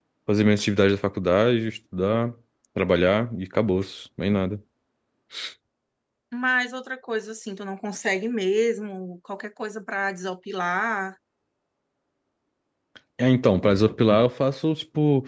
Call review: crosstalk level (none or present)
none